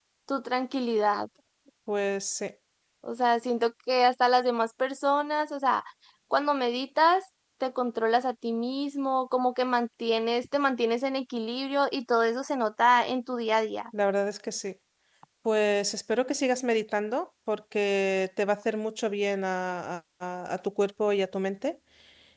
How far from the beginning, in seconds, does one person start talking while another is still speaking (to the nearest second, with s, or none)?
none